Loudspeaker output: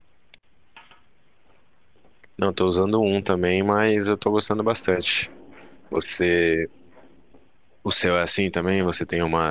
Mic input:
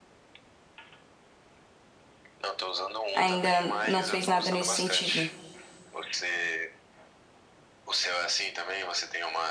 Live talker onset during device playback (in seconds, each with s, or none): 3.1 s